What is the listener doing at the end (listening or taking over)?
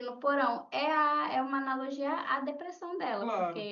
listening